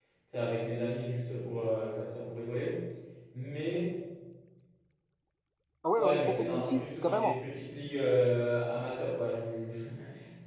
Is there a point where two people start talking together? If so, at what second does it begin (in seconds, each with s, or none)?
6.0 s